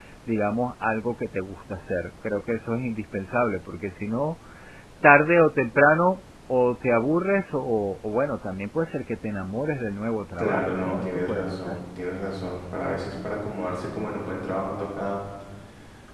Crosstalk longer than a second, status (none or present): present